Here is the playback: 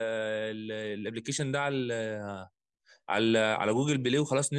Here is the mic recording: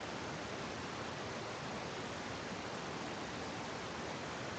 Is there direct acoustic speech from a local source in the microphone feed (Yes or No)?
No